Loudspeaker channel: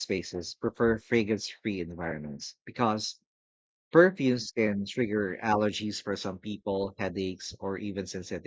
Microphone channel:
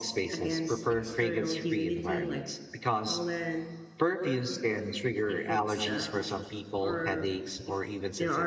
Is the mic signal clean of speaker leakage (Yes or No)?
No